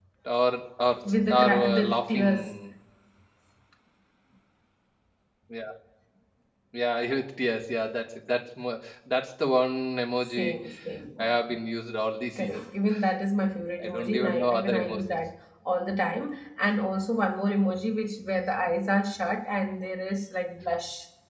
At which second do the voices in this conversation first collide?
1.3 s

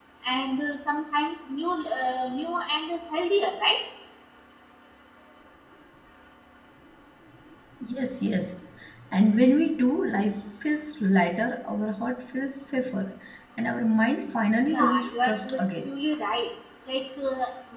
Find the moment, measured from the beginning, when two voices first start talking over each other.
14.6 s

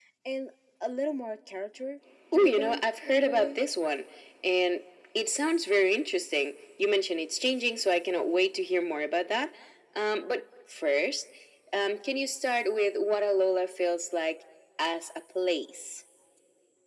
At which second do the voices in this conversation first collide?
2.3 s

